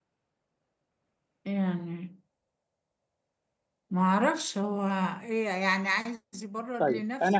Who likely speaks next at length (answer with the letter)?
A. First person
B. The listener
B